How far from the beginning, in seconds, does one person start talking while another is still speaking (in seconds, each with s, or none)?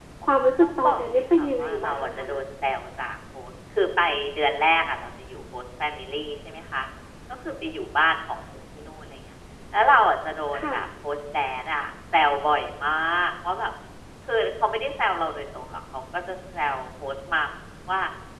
0.6 s